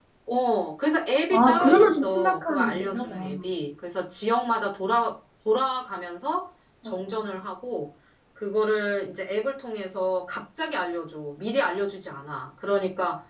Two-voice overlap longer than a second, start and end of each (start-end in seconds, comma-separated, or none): 1.3-3.5